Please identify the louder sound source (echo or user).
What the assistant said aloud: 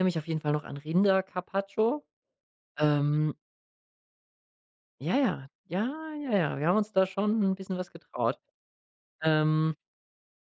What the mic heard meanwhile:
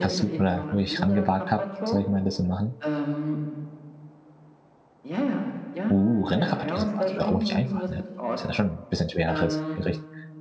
user